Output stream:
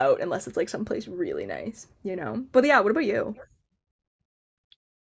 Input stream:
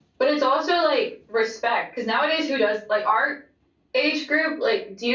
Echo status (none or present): none